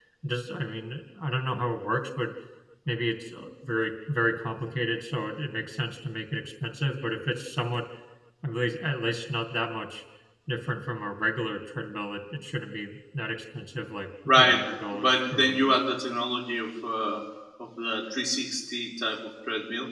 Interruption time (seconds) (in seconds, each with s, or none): 14.3 s